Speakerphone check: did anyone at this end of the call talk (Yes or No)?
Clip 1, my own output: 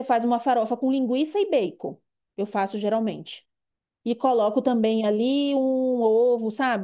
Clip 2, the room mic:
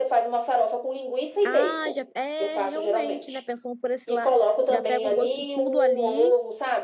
Yes